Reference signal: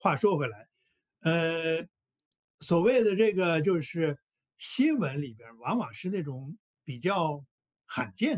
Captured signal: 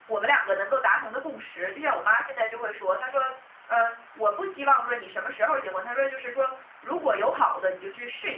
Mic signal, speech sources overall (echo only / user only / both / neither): user only